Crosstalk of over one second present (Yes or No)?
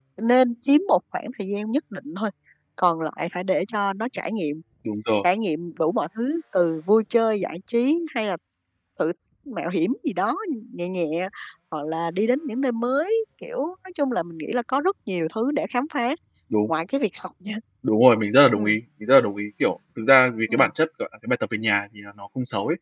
No